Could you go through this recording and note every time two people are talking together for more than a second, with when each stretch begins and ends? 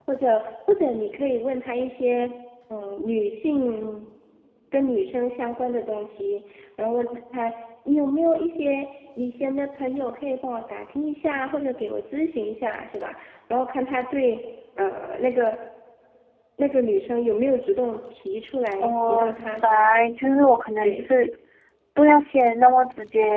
18.8-20.0

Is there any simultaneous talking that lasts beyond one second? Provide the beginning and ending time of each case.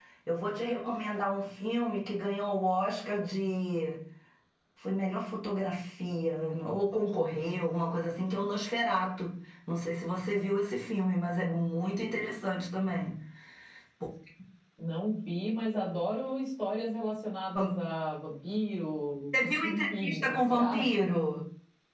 19.5-21.1

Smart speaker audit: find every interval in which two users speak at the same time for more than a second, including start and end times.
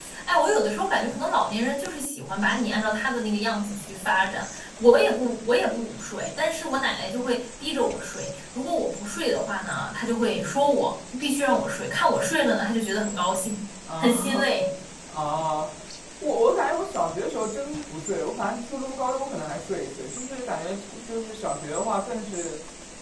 none

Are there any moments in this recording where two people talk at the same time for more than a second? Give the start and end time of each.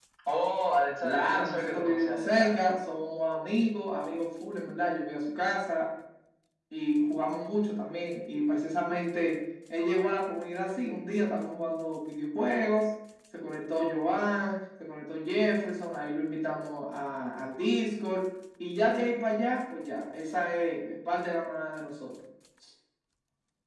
1.0-2.7

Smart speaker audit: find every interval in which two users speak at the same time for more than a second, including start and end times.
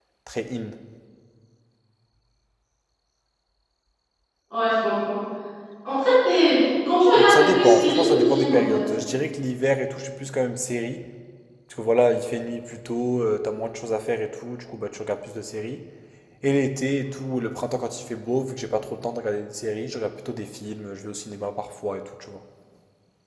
7.2-8.8

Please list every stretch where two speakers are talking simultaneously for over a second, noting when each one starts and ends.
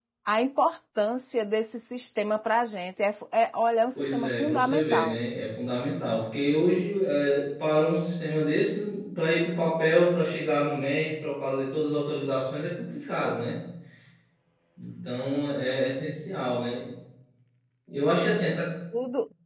4.0-5.2

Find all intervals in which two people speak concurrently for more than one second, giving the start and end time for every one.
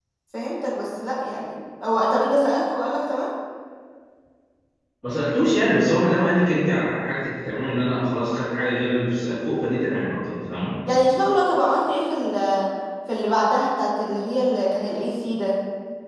none

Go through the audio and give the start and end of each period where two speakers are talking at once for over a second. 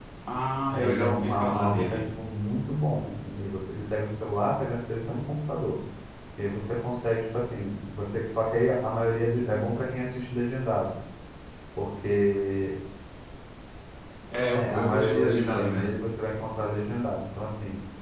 0.7-2.0, 14.5-16.0

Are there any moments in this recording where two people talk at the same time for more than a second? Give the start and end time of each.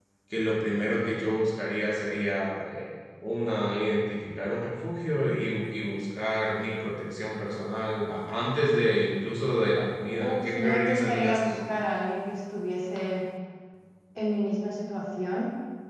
10.2-11.6

